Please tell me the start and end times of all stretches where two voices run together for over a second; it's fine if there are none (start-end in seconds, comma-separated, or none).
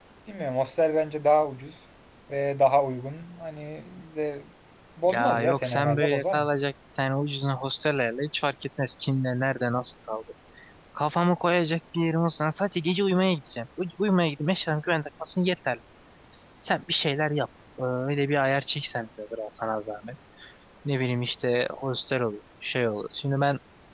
5.1-6.5